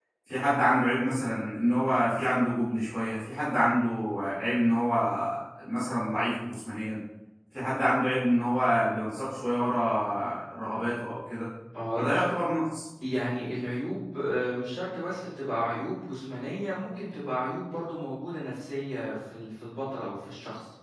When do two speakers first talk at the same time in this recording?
none

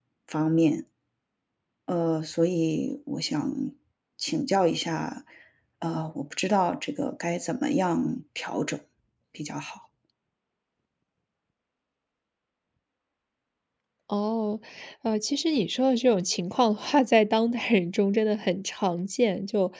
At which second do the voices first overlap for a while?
none

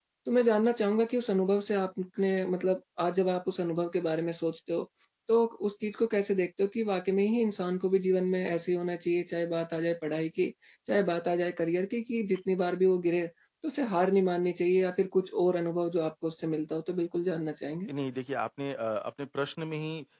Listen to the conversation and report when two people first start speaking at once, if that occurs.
none

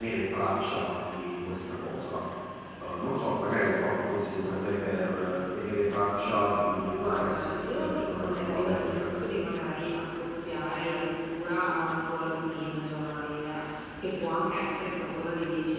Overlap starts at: 7.0 s

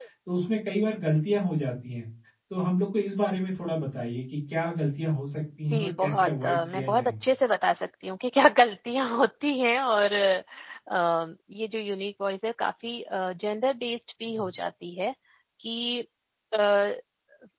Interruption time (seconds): 5.7 s

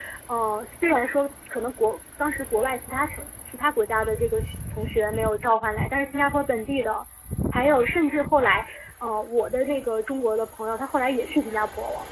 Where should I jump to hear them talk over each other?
none

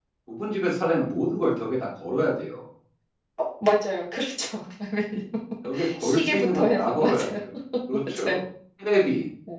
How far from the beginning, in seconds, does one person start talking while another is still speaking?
6.0 s

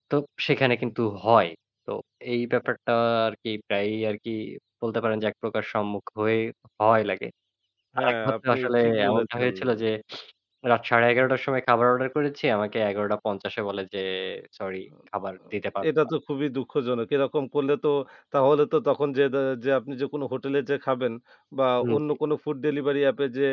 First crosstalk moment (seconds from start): 8.0 s

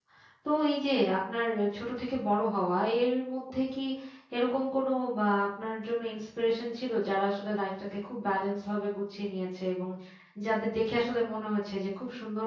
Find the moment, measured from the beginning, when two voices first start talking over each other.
none

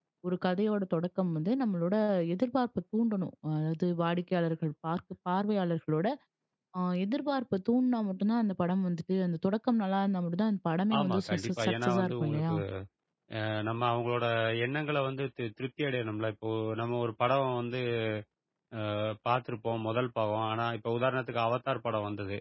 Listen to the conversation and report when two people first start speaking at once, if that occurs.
10.9 s

